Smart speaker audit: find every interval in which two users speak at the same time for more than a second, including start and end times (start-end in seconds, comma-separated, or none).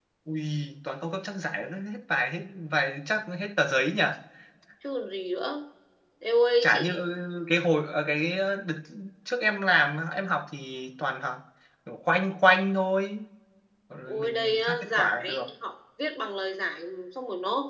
14.1-15.4